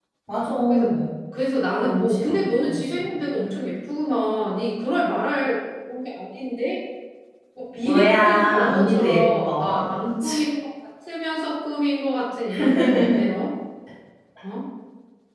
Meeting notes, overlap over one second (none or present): present